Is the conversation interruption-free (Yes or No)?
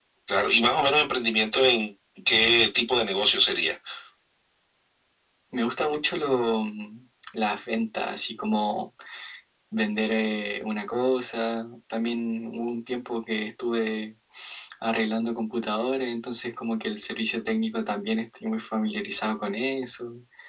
Yes